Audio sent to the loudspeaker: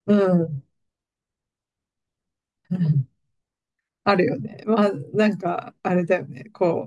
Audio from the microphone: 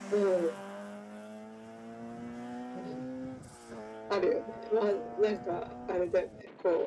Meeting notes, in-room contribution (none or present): none